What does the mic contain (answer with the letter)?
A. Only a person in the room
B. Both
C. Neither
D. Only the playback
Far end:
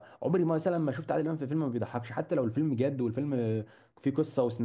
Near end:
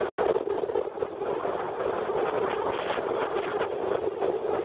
C